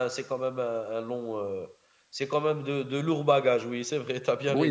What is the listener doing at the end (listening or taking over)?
taking over